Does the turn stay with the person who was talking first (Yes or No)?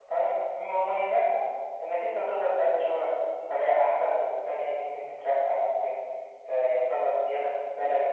No